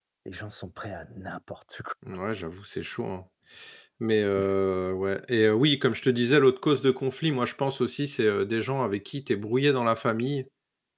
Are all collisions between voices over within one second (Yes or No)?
Yes